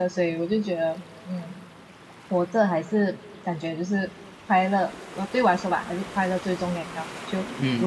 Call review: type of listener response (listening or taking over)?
listening